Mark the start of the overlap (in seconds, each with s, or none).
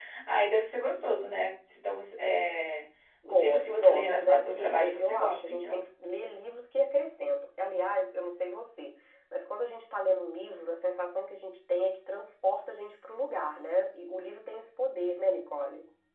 3.2 s